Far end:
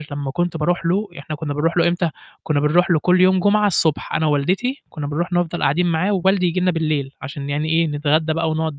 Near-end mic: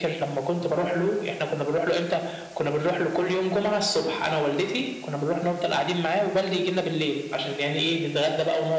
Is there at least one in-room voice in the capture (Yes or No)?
No